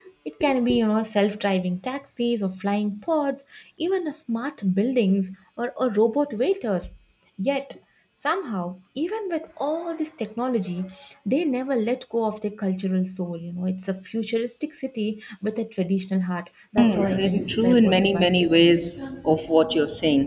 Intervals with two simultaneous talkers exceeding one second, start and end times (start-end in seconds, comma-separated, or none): 16.8-18.6